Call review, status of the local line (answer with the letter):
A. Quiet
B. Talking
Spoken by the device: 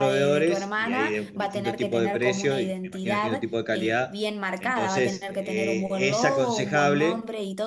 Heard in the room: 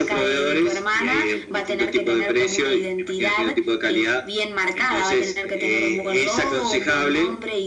A